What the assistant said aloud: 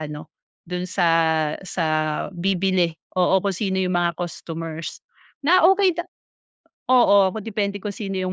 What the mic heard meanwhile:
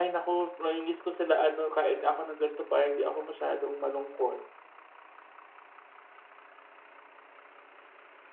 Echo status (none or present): none